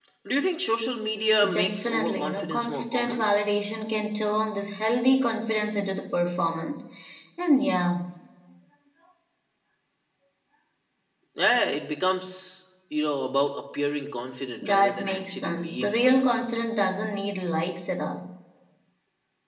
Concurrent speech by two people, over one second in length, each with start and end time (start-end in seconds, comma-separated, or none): 1.5-3.2, 14.6-16.4